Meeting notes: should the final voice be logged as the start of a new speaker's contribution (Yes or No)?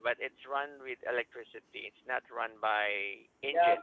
Yes